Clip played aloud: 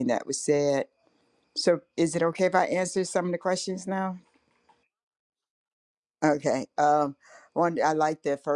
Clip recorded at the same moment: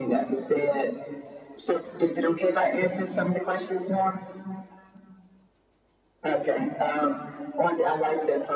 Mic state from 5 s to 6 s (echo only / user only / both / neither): neither